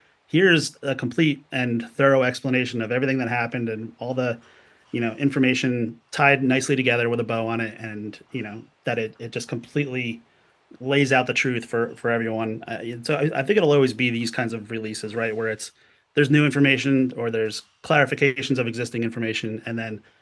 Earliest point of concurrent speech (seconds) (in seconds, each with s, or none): none